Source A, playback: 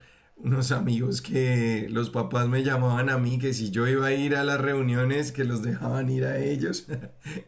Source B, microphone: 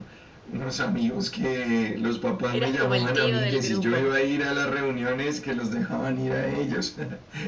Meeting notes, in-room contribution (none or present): present